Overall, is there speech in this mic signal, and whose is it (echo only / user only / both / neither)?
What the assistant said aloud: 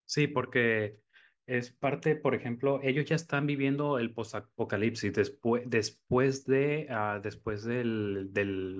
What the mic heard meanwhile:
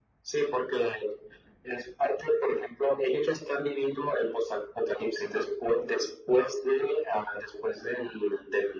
echo only